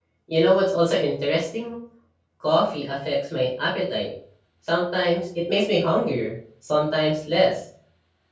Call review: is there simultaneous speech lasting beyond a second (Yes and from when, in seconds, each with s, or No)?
No